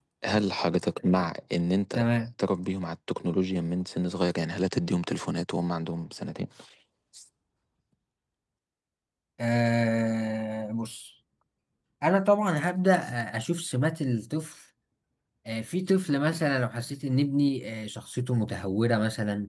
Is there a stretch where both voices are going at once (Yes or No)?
No